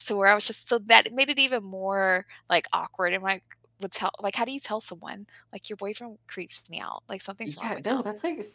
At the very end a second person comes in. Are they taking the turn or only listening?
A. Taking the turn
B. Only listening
A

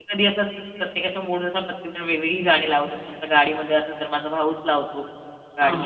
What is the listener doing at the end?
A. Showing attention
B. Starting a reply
A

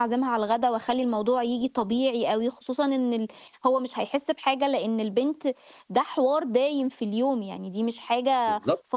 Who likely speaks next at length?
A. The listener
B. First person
A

